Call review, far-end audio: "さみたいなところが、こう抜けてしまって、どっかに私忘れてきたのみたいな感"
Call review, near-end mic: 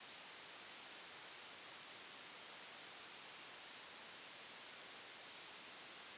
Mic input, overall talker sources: neither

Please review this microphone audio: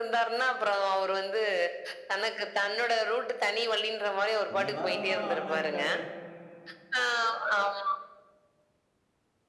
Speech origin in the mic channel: both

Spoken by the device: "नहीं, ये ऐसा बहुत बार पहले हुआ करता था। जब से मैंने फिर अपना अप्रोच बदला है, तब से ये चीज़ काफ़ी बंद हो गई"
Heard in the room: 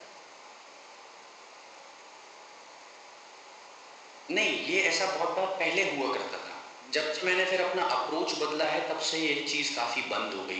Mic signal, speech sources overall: echo only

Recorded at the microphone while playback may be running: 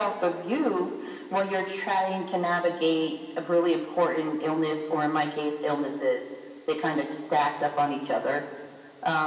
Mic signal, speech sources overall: echo only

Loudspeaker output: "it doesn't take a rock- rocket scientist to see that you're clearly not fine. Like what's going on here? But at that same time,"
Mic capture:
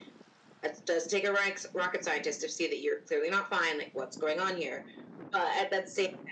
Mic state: echo only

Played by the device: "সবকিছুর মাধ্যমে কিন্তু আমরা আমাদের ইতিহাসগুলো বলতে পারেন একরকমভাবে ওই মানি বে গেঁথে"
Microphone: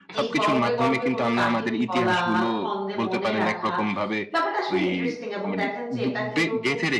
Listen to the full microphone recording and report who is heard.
both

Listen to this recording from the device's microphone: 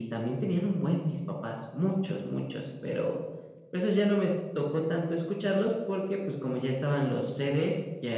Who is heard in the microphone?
echo only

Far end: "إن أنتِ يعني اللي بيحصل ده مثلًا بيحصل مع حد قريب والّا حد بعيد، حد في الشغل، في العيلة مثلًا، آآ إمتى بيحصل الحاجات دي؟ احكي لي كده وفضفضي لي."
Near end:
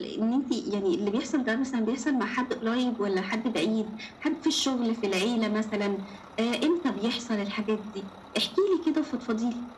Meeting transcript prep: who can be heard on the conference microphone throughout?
echo only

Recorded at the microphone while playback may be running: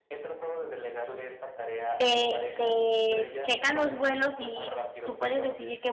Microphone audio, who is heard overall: both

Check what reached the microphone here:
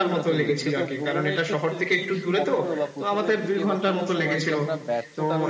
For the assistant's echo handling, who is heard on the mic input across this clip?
both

